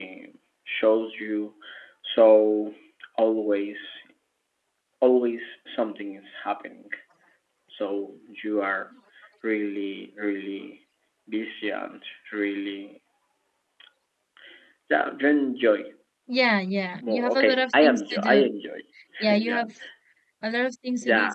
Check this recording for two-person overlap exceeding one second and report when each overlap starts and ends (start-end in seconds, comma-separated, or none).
17.0-18.5